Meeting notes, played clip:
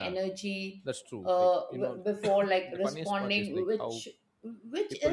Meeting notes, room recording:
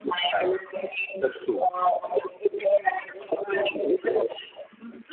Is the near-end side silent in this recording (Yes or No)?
Yes